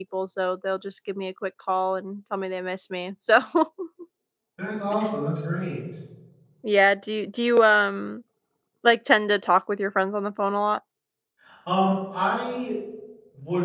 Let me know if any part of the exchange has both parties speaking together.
No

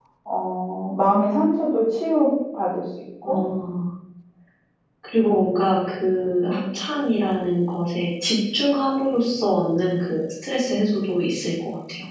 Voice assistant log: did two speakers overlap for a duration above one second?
No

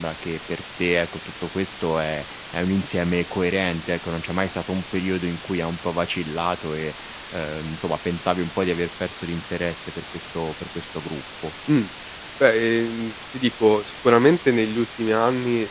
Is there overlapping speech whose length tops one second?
No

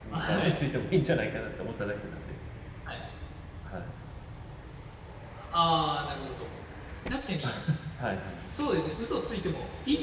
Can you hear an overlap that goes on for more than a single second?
No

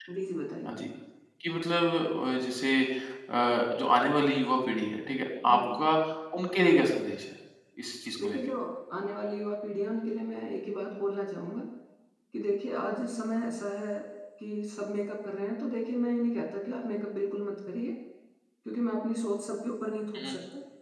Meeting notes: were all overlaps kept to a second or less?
Yes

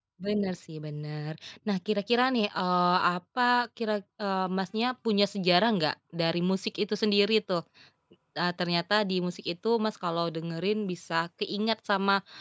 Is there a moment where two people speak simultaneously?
No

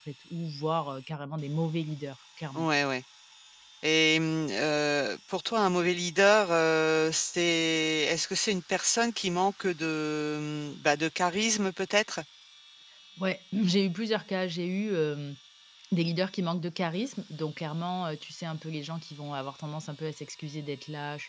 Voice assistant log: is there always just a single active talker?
Yes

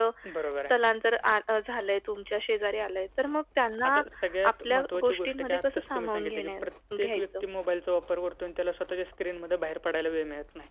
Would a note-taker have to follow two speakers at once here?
Yes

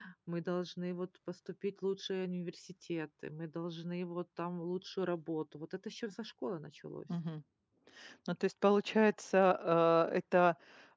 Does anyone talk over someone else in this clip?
No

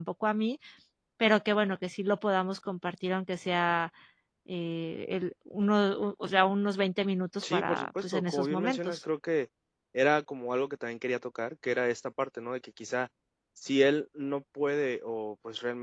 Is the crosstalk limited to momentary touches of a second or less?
No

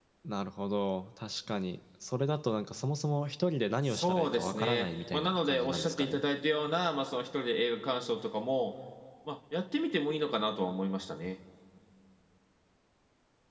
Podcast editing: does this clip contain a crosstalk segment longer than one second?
Yes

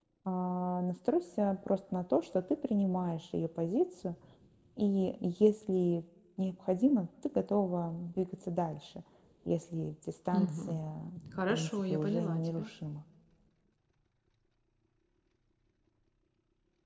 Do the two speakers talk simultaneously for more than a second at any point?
Yes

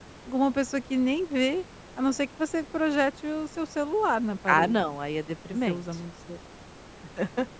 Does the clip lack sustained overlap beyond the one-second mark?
Yes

